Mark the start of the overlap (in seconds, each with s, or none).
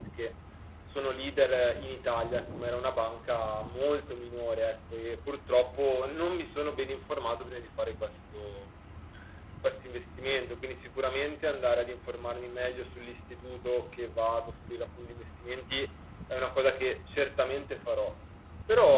none